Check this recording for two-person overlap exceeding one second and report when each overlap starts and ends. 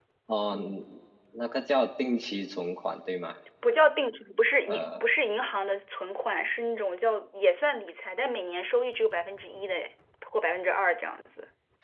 none

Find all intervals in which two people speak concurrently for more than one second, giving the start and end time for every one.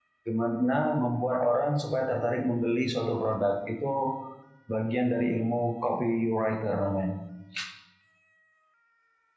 none

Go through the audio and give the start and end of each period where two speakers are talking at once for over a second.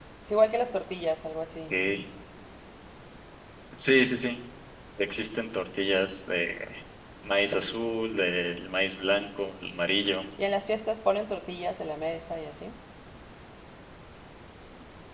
none

